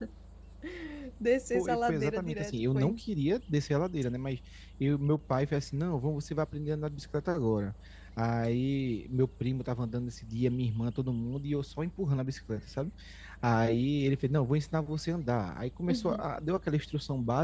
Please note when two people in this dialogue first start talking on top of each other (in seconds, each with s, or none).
1.5 s